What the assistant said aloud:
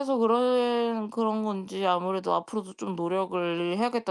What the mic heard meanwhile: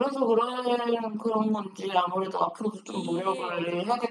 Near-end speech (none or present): present